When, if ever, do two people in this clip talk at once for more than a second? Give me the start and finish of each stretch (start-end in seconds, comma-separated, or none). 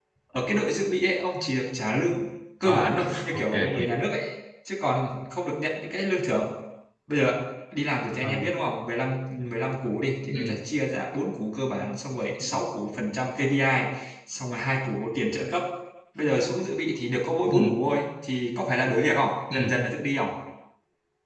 2.6-3.9